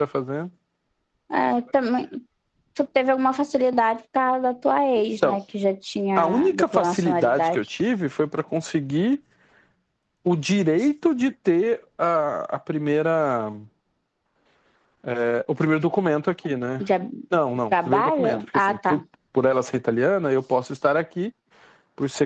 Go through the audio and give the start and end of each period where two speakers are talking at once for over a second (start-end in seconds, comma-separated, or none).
6.2-7.6, 17.7-19.0